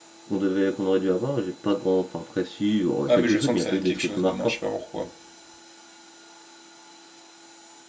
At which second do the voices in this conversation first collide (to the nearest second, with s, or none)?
3 s